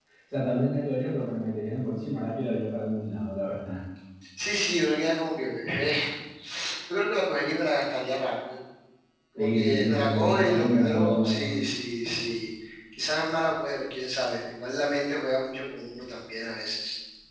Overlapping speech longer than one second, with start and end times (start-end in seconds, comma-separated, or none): 9.4-11.5